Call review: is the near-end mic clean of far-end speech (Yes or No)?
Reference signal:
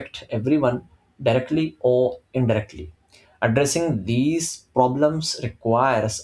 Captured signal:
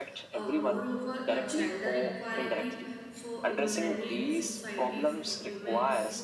No